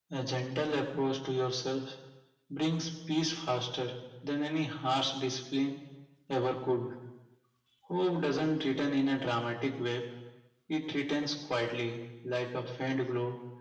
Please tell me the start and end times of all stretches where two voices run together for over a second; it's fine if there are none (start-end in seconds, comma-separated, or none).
none